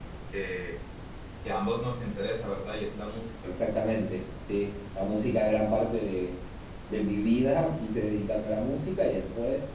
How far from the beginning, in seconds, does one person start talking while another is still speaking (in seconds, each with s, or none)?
none